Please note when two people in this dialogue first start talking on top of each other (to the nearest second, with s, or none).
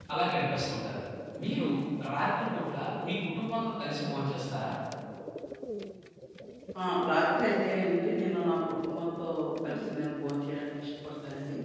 none